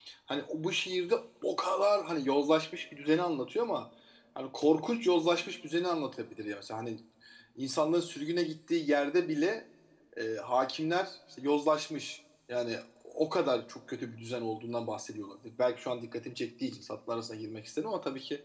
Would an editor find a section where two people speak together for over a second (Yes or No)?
No